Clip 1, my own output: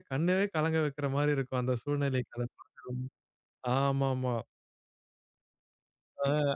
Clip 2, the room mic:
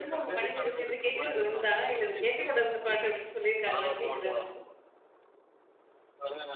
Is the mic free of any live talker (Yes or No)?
No